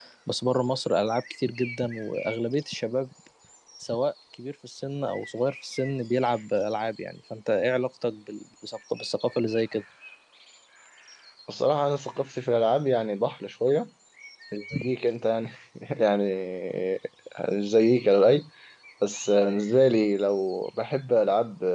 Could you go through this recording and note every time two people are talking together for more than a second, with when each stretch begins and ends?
none

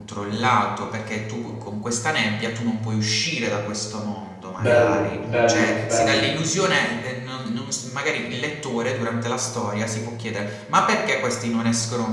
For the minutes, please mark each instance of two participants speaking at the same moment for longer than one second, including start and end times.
4.6-6.2

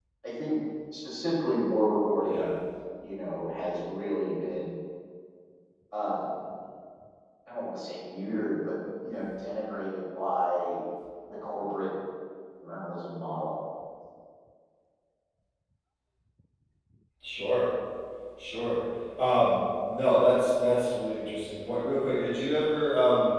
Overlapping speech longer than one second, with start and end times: none

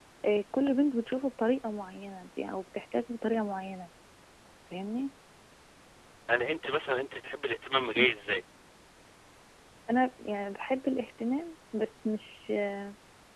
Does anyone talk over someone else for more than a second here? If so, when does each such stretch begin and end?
none

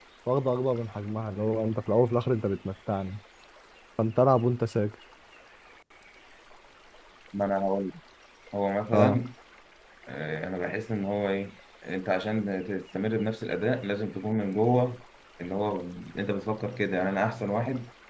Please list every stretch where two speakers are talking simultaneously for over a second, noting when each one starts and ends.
none

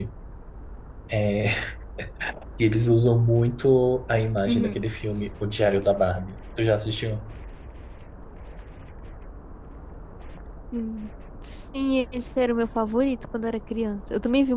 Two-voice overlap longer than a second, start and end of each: none

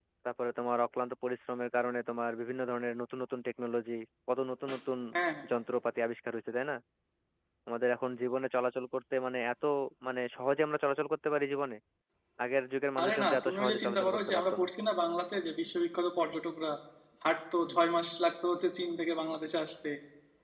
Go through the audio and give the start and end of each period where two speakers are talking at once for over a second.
13.0-14.7

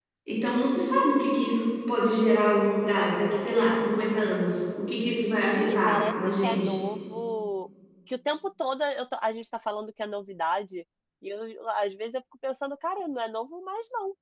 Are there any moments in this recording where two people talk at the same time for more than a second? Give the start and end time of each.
5.4-6.8

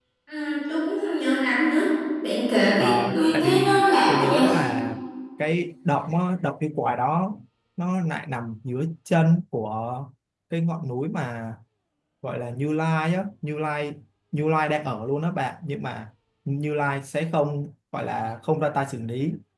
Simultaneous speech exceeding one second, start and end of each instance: 2.8-4.4

